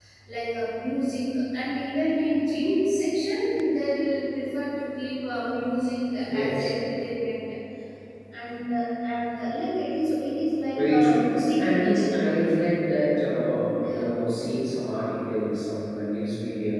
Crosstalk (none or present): present